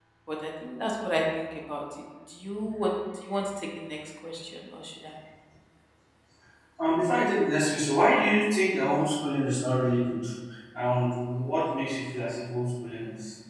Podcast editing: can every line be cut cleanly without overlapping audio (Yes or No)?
Yes